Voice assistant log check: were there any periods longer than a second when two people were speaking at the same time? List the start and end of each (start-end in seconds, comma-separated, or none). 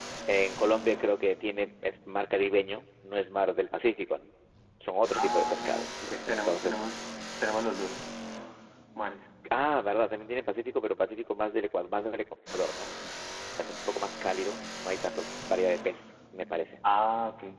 5.1-6.8